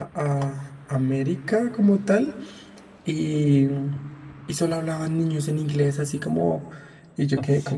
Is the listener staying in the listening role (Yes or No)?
Yes